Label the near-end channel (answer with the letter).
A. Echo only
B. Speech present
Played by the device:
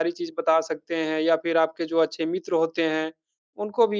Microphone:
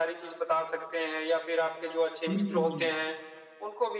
B